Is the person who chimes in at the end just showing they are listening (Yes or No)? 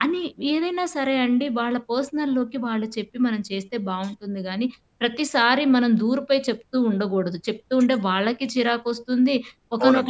Yes